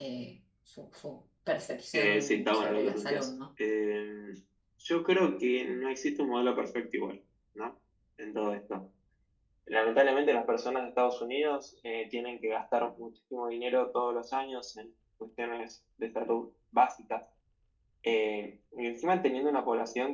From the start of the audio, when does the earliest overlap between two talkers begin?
1.9 s

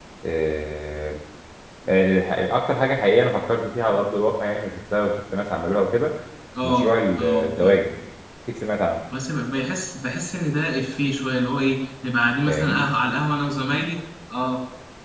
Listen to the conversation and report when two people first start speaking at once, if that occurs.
6.6 s

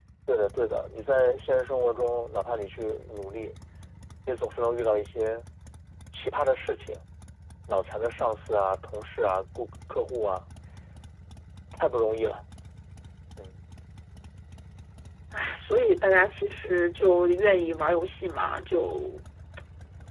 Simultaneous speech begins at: none

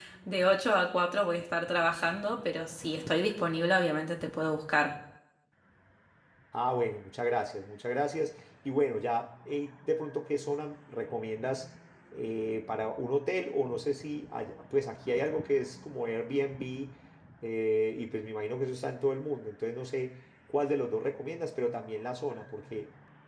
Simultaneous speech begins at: none

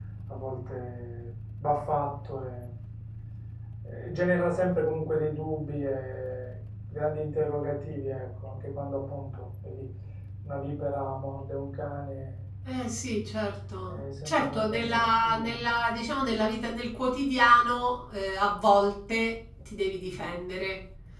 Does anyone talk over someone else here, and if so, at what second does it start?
13.9 s

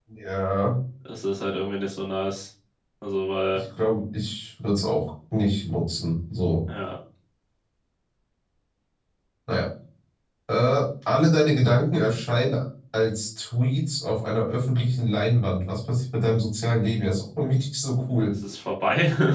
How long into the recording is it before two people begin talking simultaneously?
none

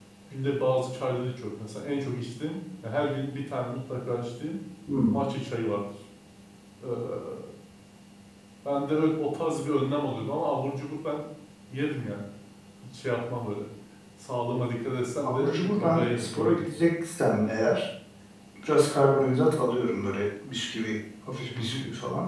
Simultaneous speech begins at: 15.2 s

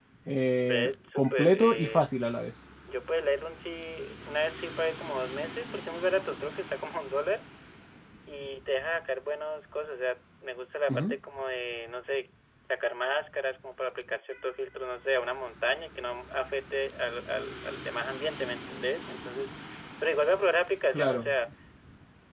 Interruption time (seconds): 0.6 s

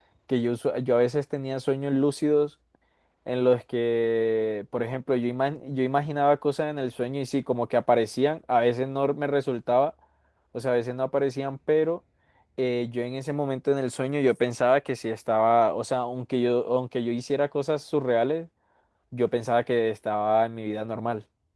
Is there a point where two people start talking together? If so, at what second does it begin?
none

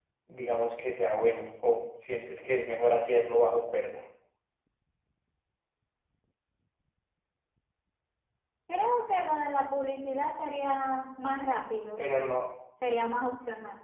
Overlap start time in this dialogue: none

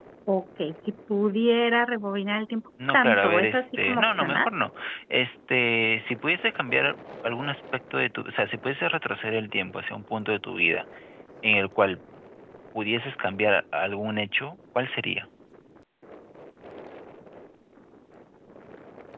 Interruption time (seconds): 2.8 s

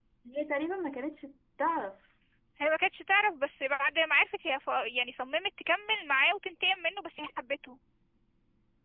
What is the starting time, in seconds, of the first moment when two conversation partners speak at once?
none

